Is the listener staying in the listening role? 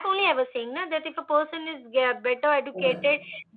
Yes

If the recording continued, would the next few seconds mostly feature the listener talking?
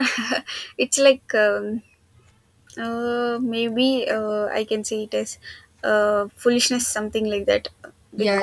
Yes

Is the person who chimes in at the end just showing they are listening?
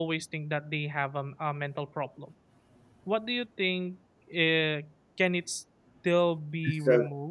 No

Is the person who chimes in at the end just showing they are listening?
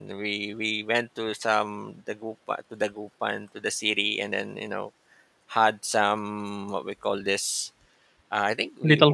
Yes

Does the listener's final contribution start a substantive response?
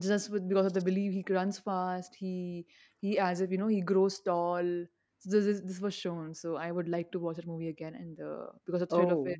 No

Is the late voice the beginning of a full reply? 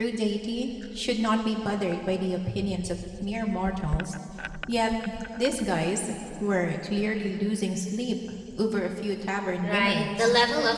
Yes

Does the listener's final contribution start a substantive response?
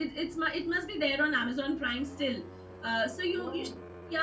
No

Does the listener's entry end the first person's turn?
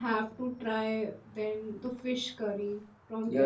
Yes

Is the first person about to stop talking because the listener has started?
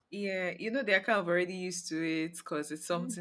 No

